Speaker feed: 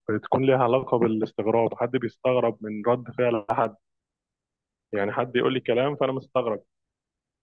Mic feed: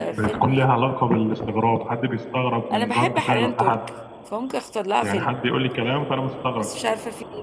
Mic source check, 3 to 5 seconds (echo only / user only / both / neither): both